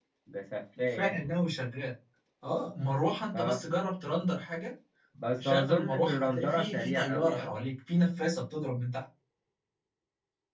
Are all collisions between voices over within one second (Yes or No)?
No